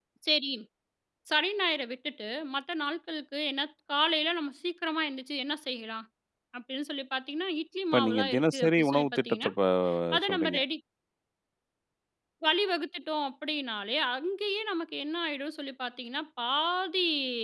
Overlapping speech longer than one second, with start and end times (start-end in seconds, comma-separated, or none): 7.9-9.5